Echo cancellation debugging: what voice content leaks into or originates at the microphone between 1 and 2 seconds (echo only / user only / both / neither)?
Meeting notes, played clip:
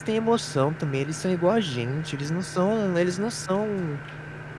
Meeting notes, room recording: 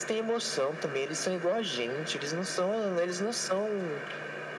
echo only